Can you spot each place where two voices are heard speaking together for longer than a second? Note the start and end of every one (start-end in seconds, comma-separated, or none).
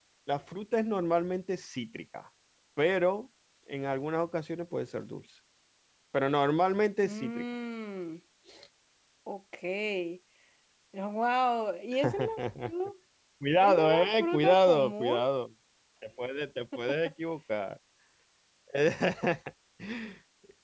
13.6-15.2